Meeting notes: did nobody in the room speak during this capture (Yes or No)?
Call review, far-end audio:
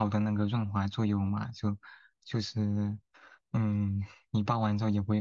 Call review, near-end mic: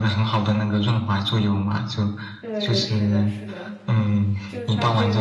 No